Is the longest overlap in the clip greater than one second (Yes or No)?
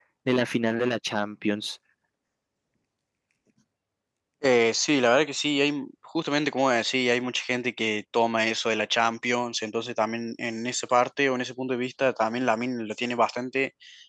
No